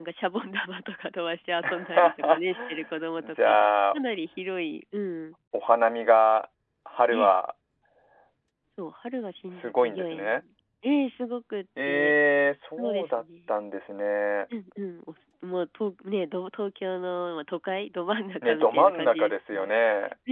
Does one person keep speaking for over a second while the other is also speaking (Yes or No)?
Yes